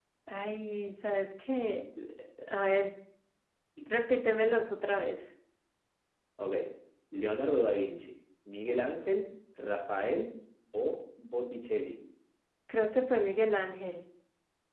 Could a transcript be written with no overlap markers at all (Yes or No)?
Yes